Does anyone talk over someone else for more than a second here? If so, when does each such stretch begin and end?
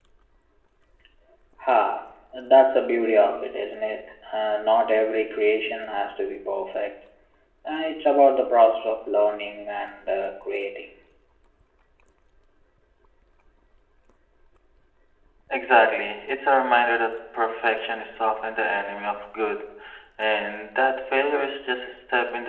none

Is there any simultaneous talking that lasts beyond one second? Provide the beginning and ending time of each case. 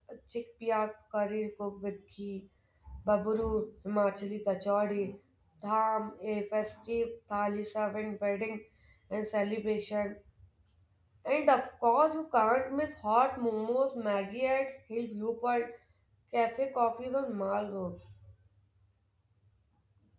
none

